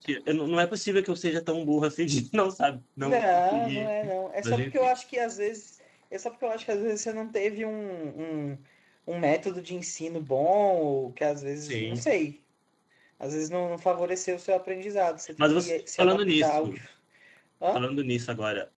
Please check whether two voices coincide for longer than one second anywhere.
Yes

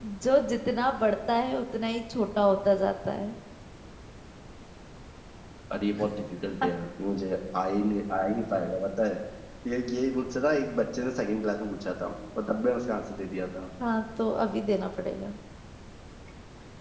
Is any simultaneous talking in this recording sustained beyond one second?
No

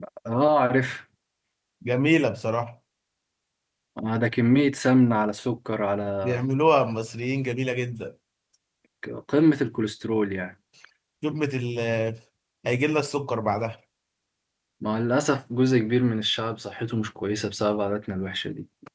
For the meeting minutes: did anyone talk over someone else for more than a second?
No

